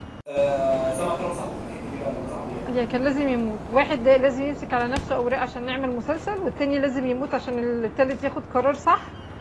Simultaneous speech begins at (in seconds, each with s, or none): none